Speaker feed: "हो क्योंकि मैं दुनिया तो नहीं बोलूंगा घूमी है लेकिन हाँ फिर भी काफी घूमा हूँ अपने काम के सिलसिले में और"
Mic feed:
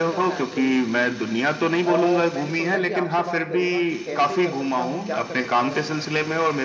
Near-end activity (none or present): present